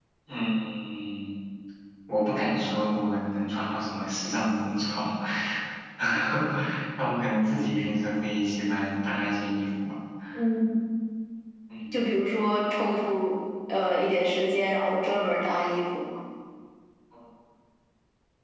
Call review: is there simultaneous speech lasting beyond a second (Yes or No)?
No